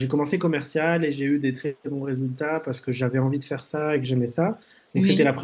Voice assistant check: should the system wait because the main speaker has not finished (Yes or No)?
Yes